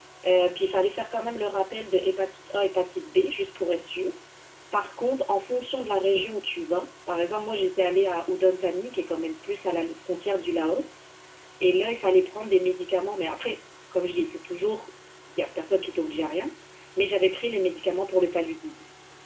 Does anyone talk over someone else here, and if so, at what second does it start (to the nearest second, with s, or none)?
none